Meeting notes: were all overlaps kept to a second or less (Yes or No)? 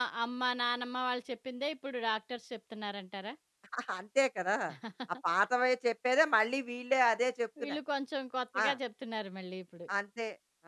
Yes